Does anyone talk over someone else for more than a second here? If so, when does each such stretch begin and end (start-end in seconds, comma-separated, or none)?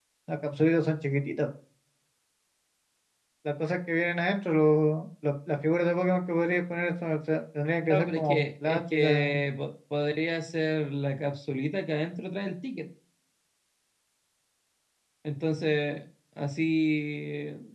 7.9-9.4